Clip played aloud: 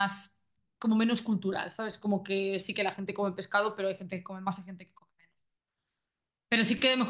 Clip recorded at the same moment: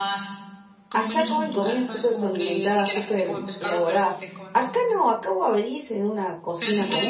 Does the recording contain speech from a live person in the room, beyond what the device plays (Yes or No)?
Yes